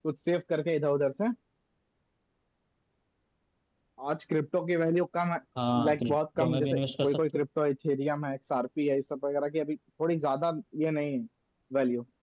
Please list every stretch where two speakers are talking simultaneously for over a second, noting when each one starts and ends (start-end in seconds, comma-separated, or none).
5.8-7.2